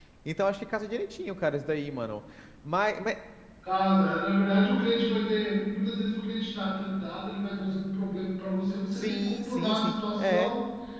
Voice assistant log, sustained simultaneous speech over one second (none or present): present